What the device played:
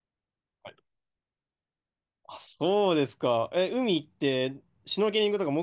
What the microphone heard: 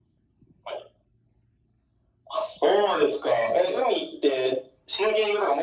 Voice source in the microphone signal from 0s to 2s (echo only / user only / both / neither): neither